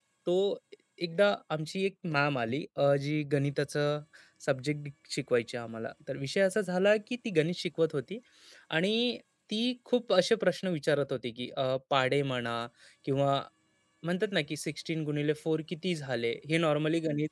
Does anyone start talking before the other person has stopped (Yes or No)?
No